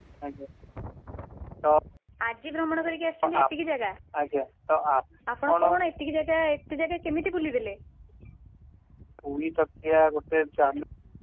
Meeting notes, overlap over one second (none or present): none